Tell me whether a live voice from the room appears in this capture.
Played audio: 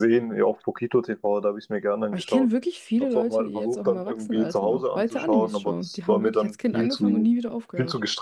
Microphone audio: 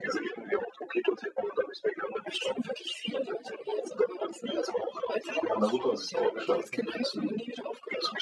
Yes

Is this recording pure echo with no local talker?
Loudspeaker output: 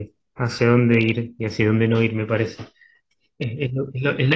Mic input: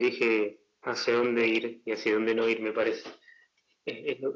Yes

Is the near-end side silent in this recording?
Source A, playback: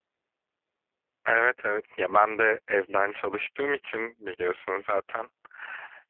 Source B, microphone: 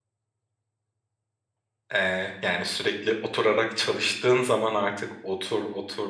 No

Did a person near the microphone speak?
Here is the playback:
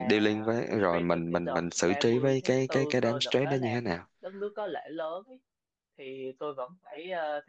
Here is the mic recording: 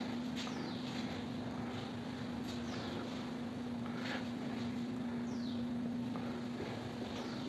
No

